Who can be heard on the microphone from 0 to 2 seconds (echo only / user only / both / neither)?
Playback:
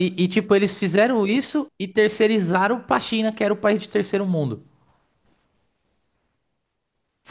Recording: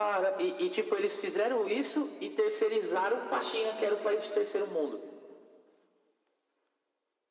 echo only